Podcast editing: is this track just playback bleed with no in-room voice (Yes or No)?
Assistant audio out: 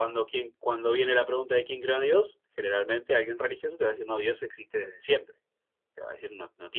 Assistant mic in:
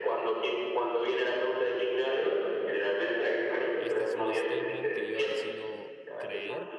No